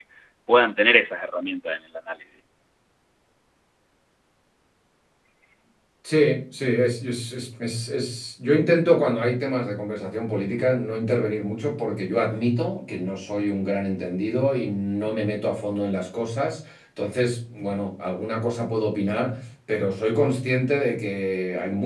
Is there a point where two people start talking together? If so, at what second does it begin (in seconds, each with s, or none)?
none